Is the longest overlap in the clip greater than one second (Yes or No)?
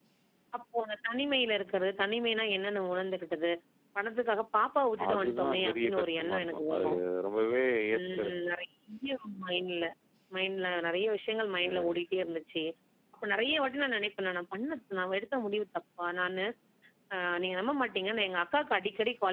Yes